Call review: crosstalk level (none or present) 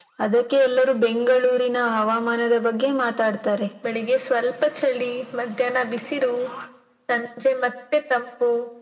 none